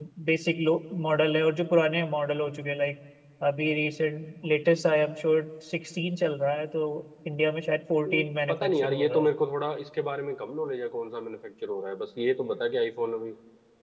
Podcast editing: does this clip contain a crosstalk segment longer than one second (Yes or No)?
Yes